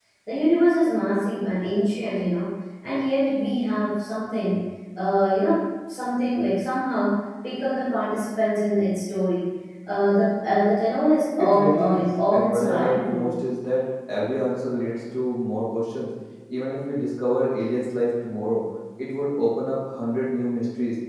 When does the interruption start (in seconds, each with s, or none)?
11.4 s